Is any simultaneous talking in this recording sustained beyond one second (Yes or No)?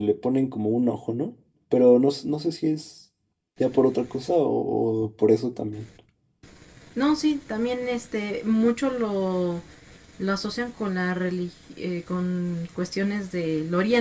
No